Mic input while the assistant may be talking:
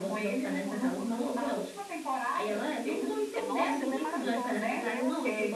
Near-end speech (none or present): present